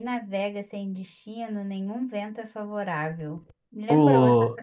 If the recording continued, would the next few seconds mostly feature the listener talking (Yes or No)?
Yes